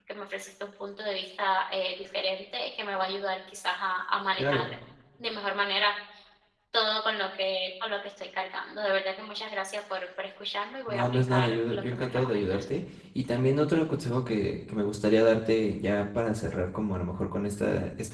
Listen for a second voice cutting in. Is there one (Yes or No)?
Yes